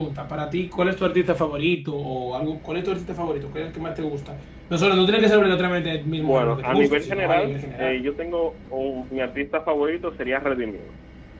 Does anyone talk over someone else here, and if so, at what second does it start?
6.2 s

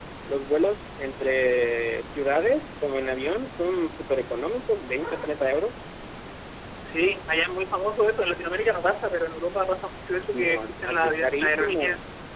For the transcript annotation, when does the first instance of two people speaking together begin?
10.3 s

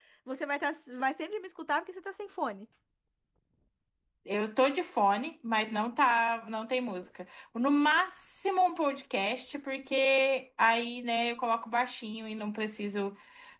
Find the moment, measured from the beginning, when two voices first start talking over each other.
none

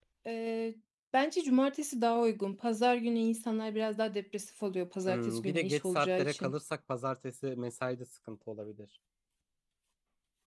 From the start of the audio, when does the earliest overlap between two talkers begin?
5.1 s

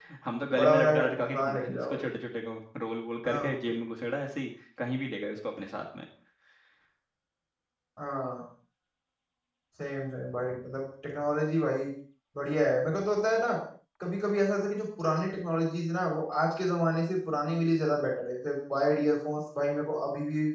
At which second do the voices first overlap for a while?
0.5 s

